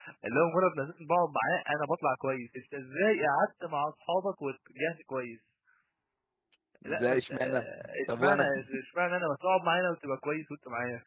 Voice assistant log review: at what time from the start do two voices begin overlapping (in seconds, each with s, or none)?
6.9 s